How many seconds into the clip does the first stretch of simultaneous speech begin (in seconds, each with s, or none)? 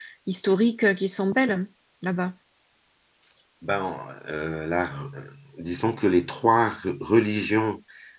none